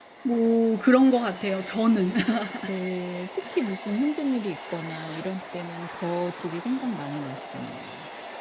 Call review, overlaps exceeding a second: none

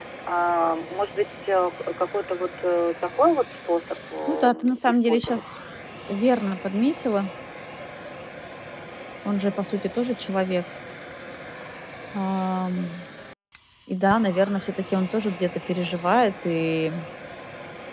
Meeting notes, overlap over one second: present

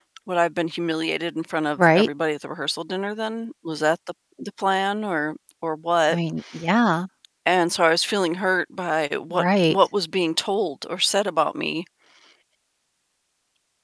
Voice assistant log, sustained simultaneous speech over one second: none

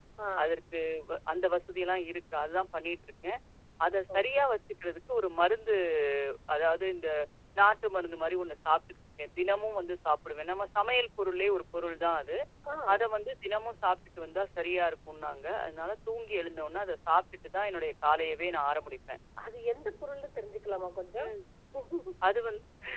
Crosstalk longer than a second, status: none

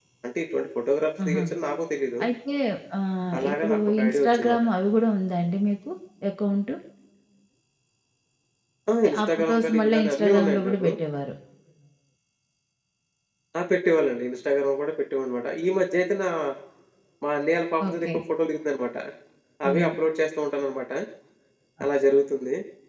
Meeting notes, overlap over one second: present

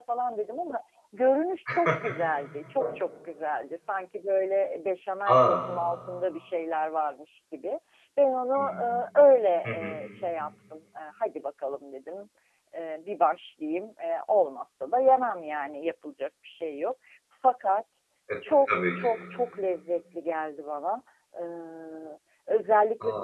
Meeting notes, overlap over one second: none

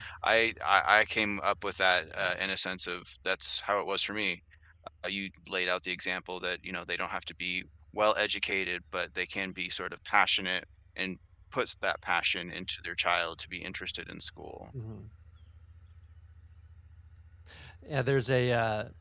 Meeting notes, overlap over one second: none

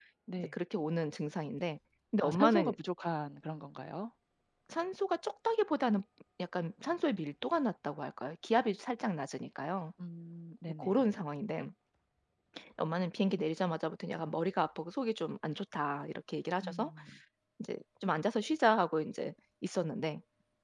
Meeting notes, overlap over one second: none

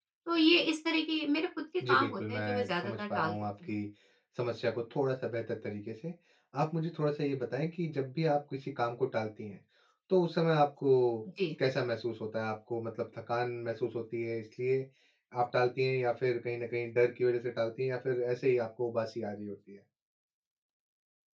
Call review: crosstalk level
present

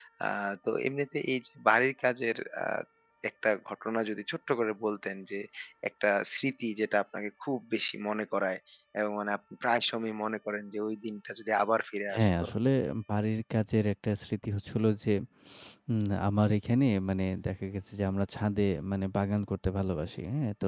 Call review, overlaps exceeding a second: none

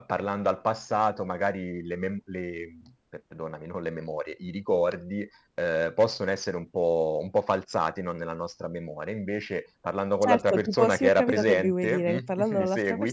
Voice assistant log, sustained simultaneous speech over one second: present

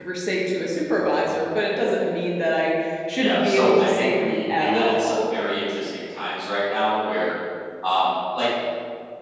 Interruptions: present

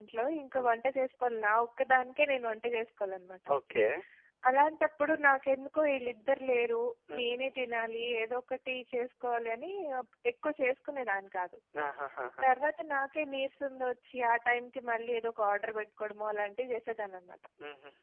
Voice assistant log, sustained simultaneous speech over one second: none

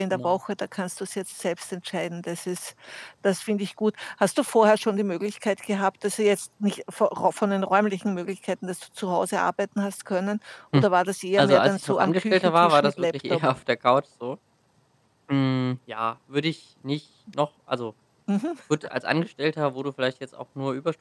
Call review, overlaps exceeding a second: present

